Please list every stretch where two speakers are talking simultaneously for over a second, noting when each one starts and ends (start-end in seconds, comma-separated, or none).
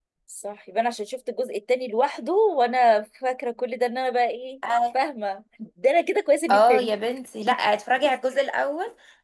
none